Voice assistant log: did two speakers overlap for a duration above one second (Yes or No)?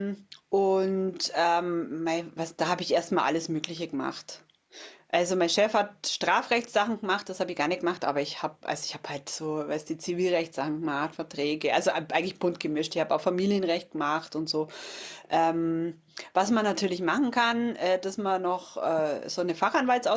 No